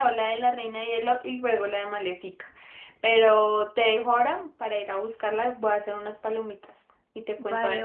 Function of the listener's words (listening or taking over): taking over